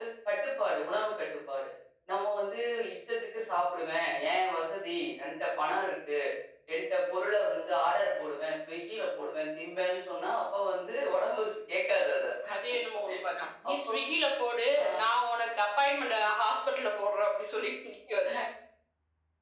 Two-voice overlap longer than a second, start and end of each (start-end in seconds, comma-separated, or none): none